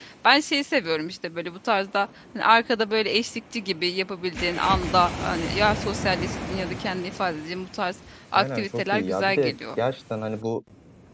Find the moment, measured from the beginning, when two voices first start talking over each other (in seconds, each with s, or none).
8.3 s